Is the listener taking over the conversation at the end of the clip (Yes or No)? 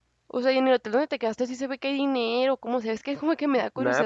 Yes